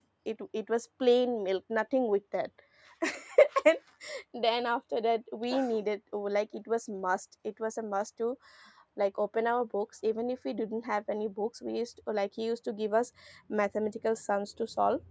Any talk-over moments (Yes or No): No